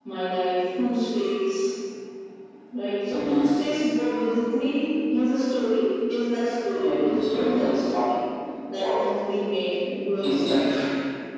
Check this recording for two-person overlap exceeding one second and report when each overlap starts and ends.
6.7-8.0

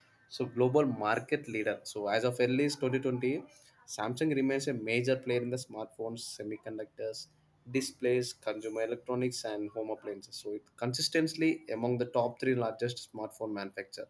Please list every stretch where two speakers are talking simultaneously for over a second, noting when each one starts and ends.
none

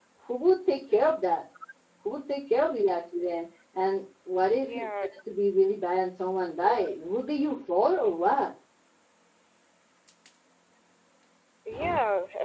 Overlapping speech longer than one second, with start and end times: none

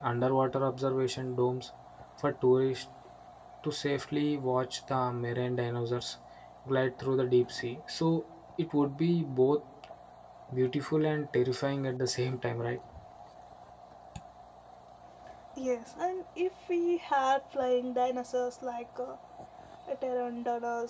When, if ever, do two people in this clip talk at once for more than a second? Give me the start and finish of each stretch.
none

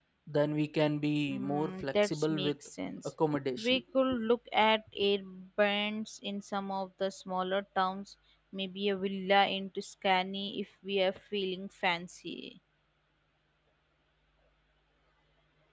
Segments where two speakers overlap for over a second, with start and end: 1.3-2.5

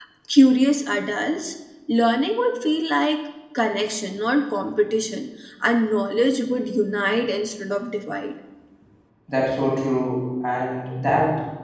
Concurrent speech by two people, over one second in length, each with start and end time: none

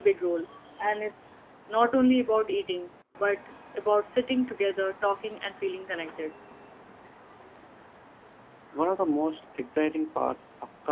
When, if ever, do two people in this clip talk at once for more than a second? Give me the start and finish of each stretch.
none

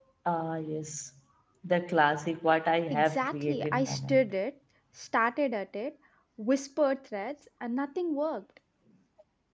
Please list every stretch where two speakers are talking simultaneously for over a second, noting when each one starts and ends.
2.9-4.3

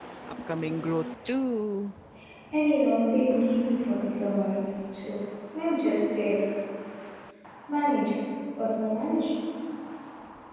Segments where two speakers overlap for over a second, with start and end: none

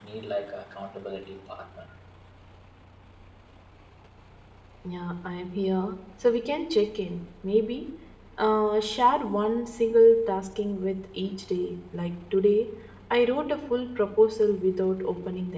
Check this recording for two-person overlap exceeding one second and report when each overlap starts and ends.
none

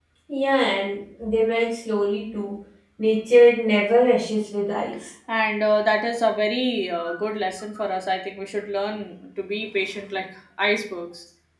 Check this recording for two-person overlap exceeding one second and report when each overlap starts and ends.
none

